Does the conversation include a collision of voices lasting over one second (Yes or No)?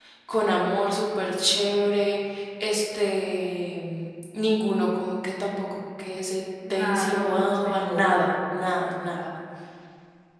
Yes